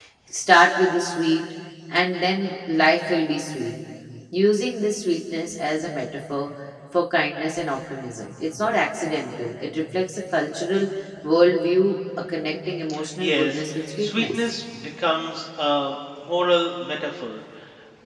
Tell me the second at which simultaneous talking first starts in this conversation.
13.2 s

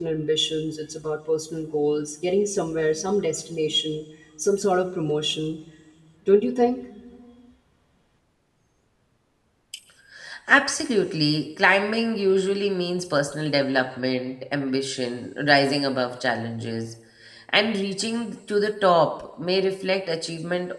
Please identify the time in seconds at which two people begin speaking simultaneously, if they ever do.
none

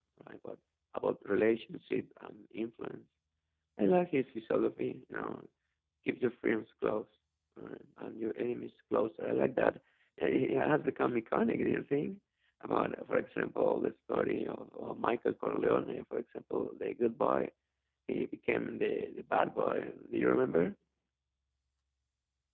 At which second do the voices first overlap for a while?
none

